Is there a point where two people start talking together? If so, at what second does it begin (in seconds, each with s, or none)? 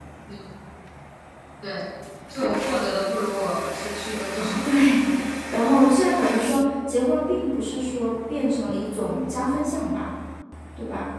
none